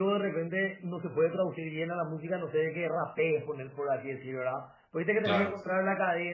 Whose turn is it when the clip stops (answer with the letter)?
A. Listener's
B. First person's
B